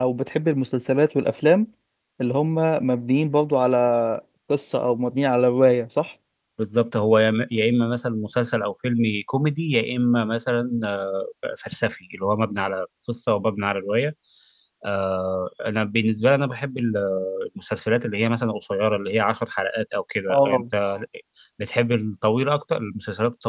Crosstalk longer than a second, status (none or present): none